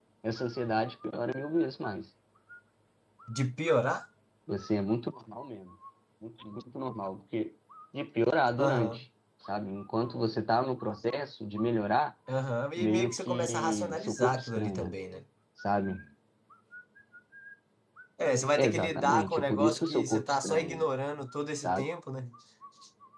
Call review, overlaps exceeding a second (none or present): present